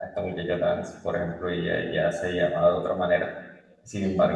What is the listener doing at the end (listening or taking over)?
listening